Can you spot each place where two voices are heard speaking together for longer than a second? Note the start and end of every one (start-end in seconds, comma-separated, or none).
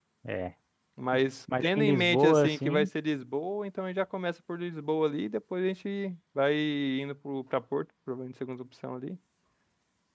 1.6-2.9